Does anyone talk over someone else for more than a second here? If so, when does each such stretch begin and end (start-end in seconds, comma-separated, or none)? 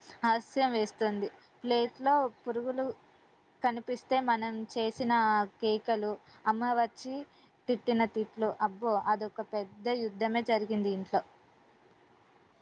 none